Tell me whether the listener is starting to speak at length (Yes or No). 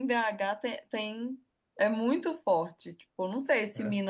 No